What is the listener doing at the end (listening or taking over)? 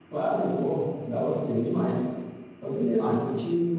listening